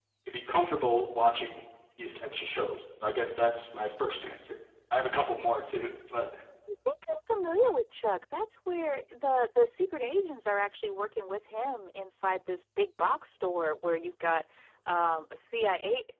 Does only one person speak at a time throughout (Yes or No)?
Yes